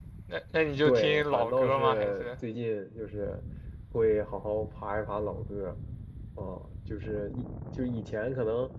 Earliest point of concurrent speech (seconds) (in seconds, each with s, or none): 0.8 s